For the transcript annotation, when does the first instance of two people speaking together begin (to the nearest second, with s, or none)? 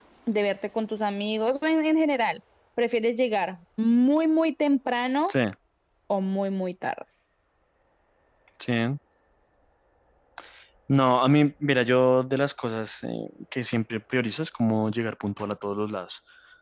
none